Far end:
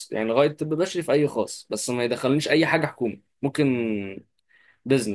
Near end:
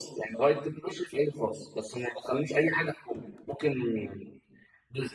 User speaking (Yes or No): No